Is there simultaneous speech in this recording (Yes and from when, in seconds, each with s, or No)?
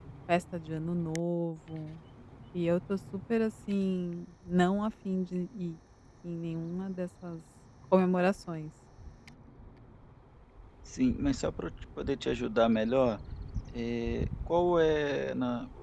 No